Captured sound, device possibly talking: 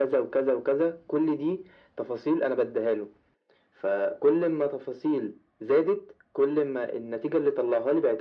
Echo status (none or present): present